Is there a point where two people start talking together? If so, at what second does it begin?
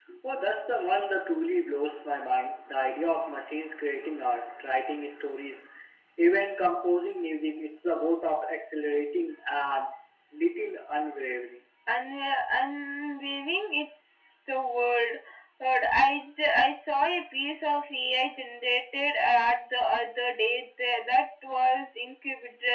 none

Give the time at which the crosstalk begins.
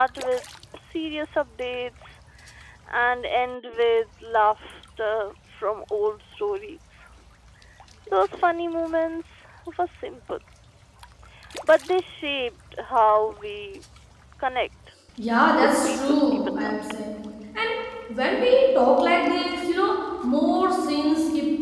15.6 s

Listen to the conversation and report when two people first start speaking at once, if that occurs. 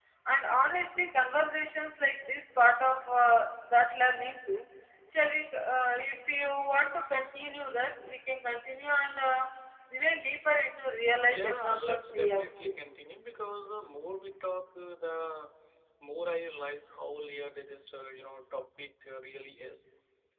11.3 s

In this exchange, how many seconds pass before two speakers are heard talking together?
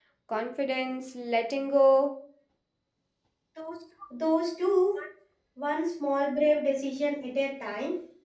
none

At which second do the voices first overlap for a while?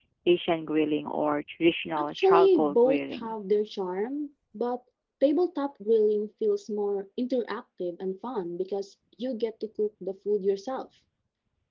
2.0 s

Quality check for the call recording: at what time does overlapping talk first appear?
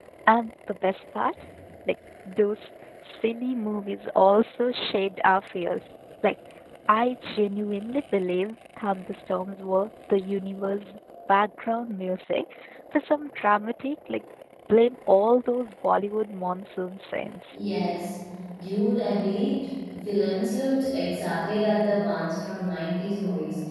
none

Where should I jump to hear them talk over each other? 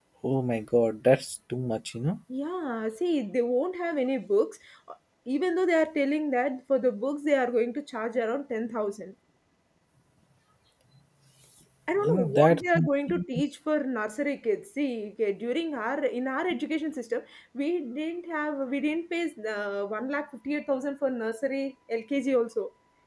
12.0 s

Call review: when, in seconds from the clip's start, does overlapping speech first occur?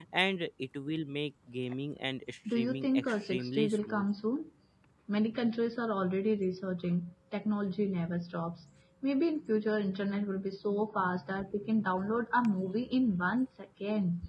2.4 s

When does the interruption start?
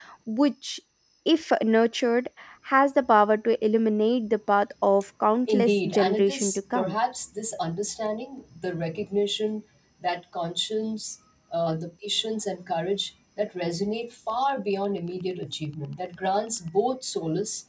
5.5 s

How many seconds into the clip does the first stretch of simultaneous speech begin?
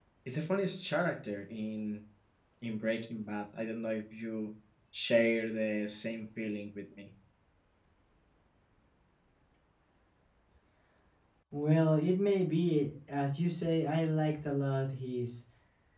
none

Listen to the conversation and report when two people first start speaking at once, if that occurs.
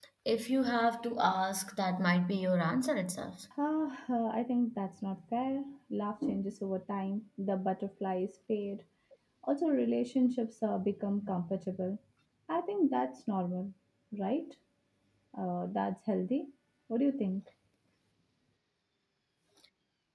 none

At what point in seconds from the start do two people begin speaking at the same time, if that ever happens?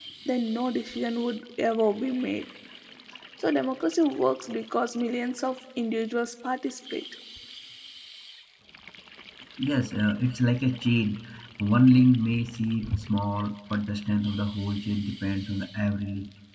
none

